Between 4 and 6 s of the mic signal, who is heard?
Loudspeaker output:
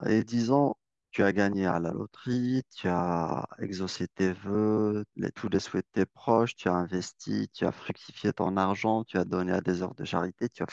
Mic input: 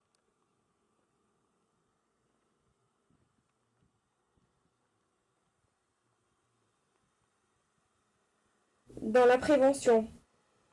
neither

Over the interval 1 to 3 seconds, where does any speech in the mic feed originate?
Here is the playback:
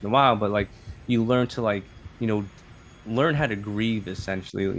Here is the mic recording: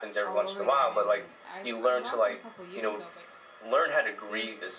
both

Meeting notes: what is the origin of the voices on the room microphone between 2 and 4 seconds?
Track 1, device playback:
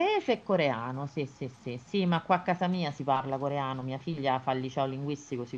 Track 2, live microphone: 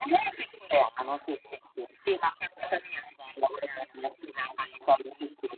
echo only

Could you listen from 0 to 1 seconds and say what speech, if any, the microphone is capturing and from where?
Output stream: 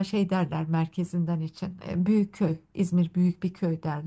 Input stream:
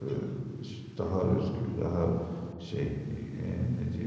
user only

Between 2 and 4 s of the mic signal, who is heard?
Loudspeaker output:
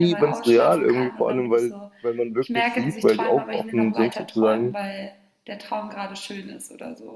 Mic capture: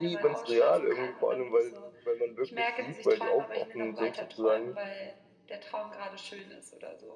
echo only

